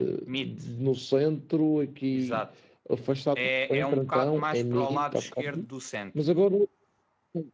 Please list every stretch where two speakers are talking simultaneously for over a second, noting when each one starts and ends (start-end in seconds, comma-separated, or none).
3.4-5.4